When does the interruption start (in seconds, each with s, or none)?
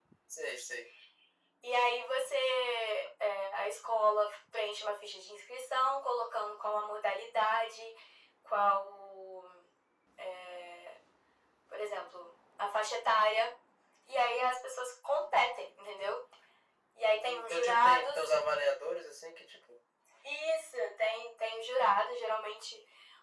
17.0 s